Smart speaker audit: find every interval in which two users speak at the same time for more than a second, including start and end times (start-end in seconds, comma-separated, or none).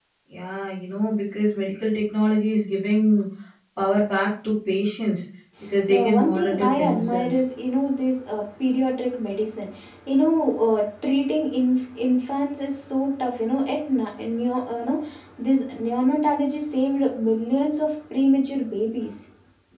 5.9-7.4